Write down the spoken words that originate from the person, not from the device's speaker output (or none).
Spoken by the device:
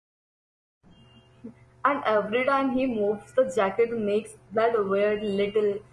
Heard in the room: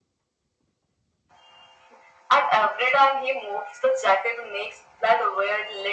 none